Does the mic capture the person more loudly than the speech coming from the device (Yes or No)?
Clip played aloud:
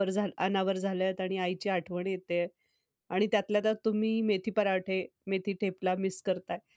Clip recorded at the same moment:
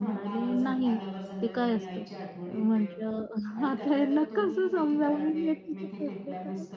Yes